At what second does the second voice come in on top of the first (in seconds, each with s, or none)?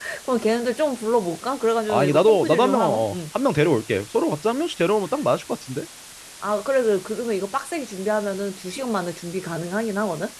1.9 s